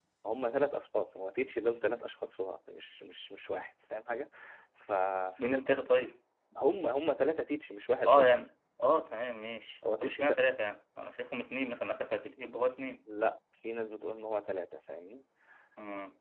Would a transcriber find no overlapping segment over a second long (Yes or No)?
Yes